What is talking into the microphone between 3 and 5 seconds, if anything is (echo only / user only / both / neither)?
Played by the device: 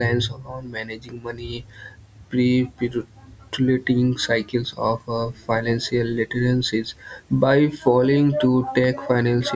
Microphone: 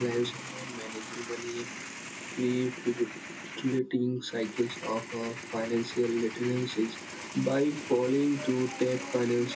echo only